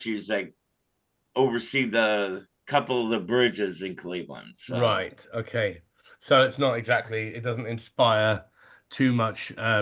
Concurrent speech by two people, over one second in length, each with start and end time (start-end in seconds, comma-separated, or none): none